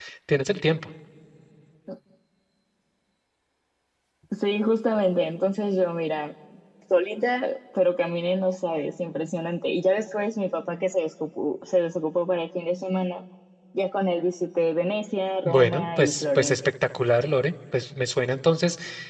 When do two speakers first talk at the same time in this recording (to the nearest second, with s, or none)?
15 s